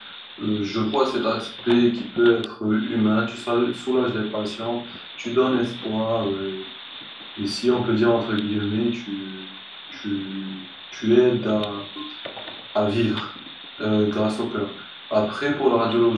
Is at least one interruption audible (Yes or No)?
No